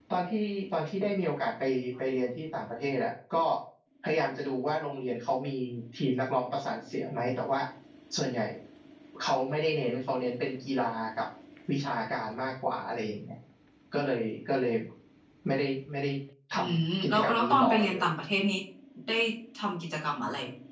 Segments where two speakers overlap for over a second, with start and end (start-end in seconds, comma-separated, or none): 16.5-18.0